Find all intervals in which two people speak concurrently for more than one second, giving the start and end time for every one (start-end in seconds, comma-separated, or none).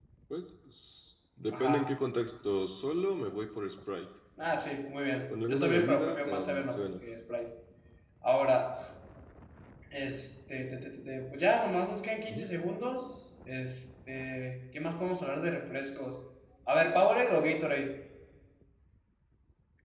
5.3-6.9